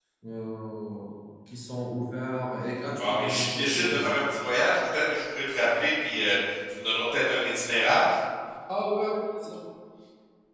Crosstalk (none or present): present